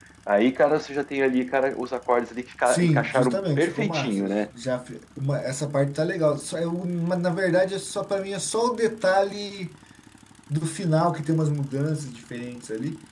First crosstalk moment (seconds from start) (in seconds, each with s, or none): 2.6 s